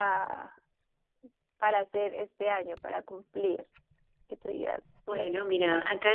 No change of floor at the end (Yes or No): No